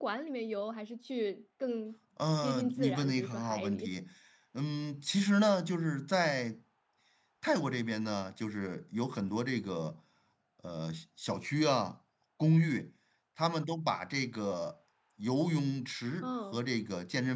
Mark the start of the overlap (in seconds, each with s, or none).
2.4 s